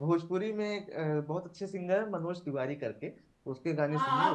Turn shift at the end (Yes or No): Yes